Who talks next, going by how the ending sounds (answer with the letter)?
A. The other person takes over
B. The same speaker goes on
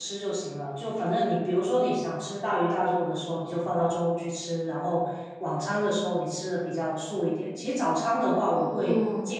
B